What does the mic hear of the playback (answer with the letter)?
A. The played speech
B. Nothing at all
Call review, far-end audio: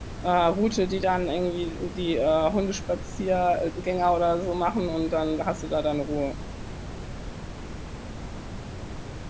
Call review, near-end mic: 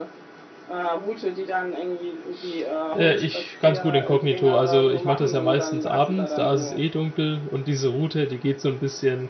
A